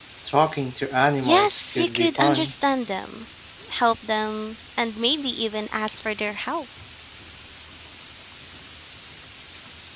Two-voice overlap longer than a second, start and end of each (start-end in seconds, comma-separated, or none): 1.2-2.5